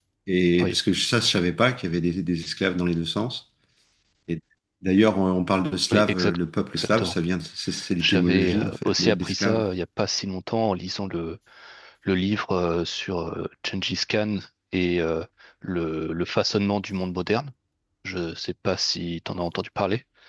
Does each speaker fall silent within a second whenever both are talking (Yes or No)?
No